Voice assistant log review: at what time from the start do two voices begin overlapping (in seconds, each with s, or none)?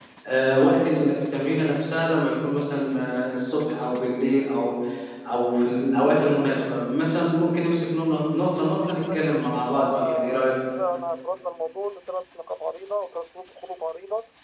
8.7 s